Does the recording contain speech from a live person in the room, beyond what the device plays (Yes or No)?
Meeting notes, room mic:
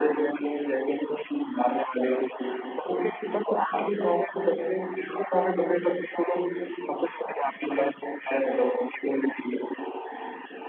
No